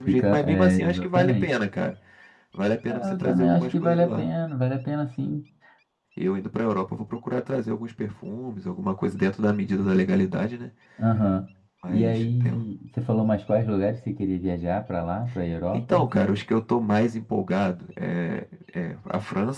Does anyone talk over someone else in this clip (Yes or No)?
Yes